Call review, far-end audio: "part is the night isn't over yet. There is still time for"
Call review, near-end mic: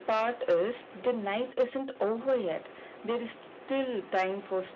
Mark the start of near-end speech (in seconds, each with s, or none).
none